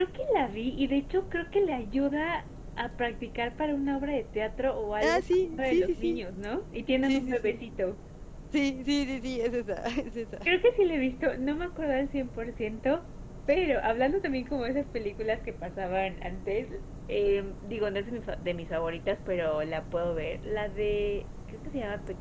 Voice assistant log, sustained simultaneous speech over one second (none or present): present